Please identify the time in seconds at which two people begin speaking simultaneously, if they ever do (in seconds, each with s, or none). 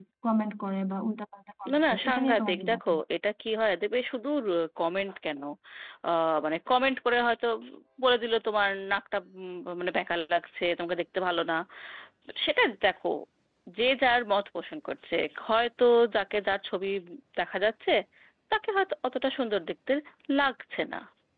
1.6 s